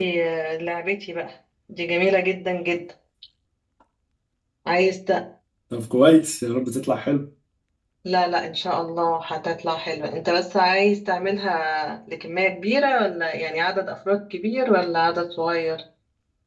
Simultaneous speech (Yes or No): No